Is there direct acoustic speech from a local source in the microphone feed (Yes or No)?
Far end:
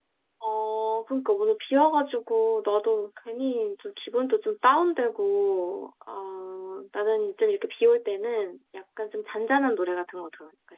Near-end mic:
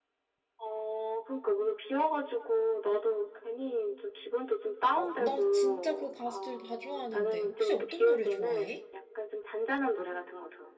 Yes